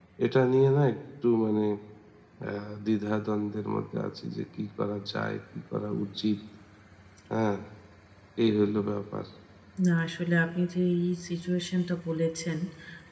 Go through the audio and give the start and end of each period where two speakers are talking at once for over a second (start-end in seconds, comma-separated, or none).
none